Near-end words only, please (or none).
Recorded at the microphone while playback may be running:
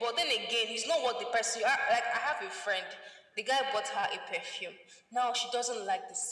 none